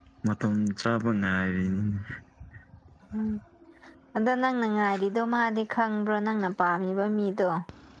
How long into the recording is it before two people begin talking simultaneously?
none

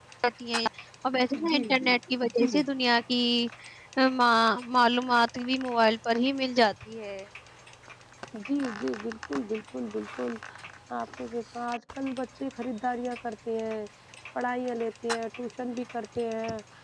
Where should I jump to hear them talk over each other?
1.3 s

